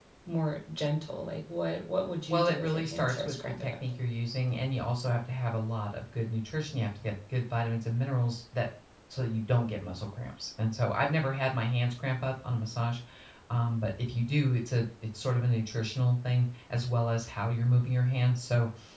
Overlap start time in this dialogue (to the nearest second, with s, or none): 2 s